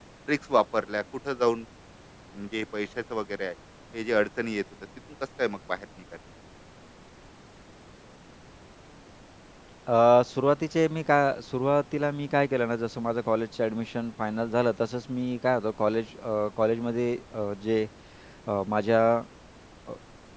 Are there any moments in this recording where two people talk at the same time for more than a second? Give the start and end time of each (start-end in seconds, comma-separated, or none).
none